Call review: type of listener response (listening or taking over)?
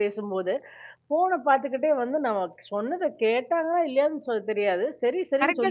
taking over